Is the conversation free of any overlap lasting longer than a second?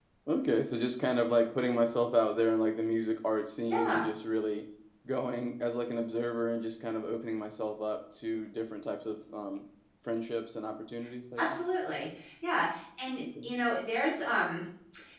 Yes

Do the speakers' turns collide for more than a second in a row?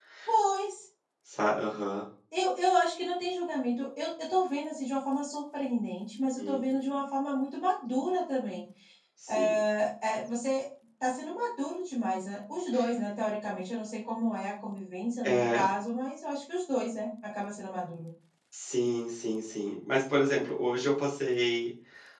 No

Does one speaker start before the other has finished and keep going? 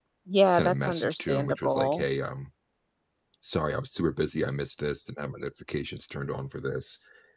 Yes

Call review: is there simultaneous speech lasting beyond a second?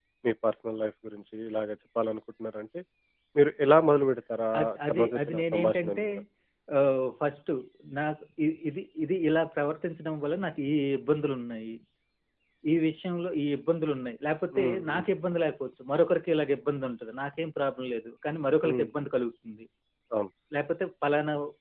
Yes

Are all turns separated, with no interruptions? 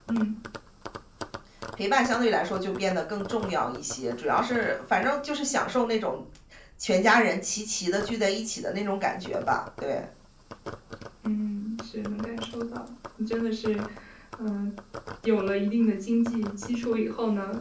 Yes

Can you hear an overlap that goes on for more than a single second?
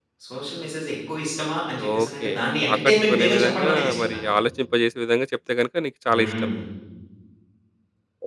Yes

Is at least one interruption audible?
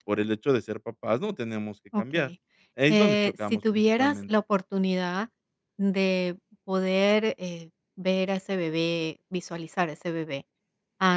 Yes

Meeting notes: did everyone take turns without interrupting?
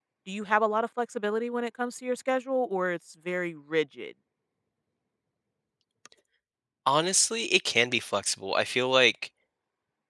Yes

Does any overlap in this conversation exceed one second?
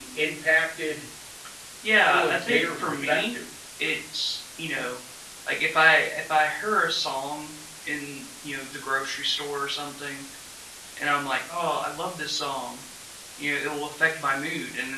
Yes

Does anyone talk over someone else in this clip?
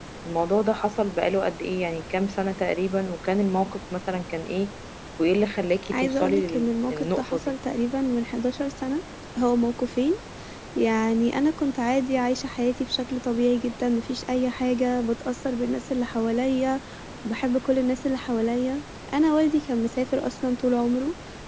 Yes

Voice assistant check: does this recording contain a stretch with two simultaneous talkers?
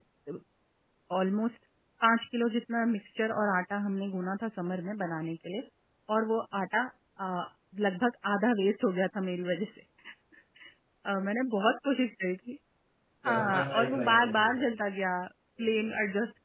Yes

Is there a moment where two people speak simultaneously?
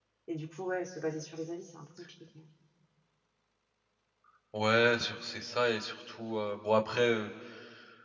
No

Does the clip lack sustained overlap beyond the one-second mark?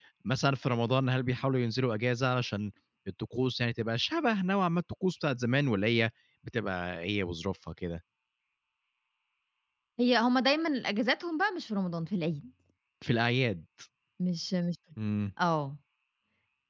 Yes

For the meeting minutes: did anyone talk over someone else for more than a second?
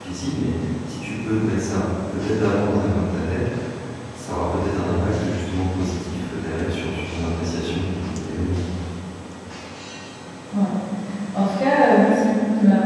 No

